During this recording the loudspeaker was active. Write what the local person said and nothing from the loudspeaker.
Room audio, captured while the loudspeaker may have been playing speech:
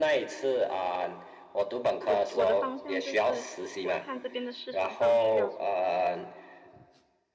我我的方向就是我看这边的市场上需要什么，

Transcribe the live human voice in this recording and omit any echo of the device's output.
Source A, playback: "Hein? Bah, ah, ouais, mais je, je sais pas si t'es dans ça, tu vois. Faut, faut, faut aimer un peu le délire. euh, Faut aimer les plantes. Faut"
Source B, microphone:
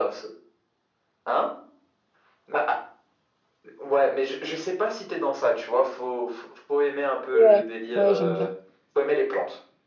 ouais, ouais, j'aime bien.

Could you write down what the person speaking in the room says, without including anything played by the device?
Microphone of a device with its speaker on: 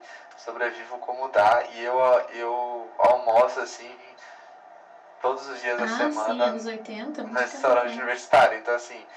Ah, sim, anos 80, muito tempo atrás.

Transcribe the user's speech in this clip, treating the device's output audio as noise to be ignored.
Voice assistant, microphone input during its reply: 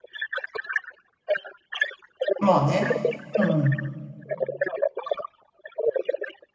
まあね。うん。

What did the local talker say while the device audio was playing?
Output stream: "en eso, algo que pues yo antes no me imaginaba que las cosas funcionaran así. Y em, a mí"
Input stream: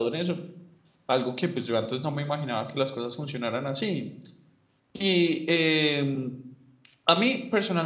none

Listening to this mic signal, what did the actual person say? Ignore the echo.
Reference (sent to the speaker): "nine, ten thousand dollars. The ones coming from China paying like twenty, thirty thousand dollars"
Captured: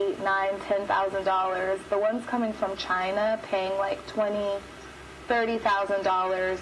none

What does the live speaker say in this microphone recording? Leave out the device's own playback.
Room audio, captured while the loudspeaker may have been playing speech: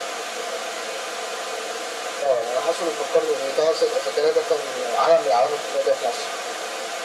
none

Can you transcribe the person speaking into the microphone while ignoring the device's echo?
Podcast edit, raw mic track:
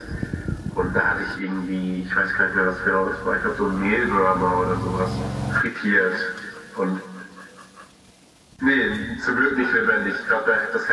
none

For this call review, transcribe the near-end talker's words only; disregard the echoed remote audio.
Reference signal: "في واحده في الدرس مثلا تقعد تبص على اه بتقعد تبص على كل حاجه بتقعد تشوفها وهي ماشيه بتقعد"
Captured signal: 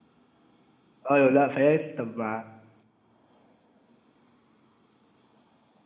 ايوه لا فهي قالت لي طب ما

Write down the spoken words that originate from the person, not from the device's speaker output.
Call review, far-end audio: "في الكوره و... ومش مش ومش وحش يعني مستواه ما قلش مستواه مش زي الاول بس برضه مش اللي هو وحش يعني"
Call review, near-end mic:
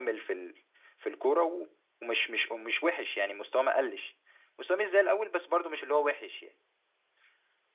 none

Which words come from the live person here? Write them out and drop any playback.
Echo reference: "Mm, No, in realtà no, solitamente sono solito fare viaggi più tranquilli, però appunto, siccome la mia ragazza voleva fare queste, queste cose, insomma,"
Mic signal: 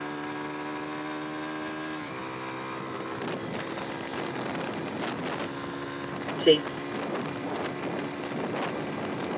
Sì,

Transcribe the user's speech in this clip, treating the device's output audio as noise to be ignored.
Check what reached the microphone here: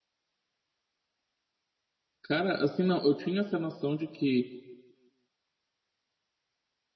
Cara, assim, não, eu tinha essa noção de que

